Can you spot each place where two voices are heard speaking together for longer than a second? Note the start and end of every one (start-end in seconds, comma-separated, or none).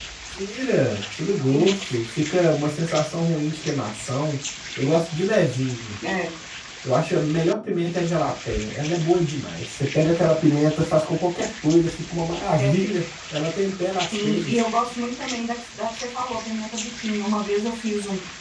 none